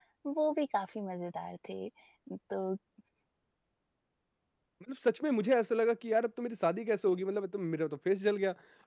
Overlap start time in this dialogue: none

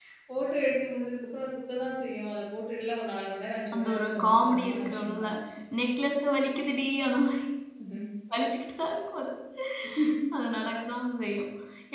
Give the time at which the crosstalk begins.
4 s

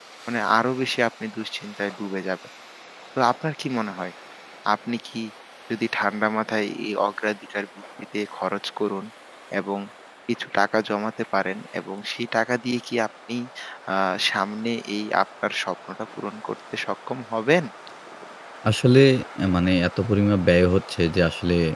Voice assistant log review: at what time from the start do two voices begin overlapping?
none

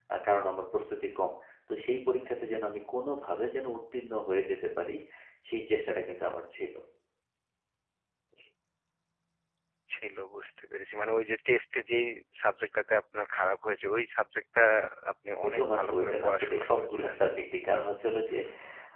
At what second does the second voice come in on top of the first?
15 s

